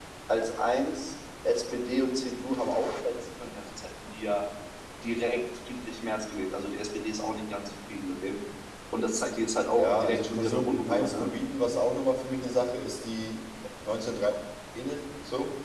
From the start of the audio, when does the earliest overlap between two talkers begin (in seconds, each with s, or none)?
9.8 s